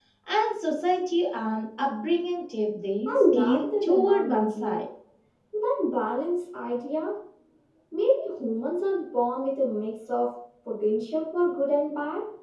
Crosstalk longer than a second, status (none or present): present